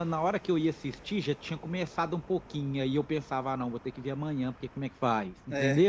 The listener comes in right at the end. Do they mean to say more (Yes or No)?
Yes